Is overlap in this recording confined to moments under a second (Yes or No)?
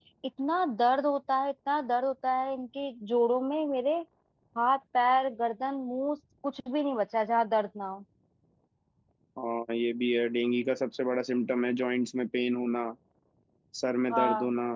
Yes